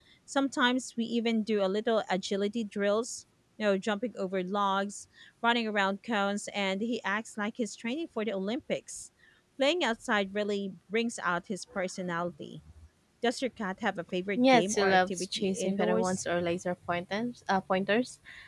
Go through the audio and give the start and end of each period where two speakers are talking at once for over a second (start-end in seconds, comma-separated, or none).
14.4-16.2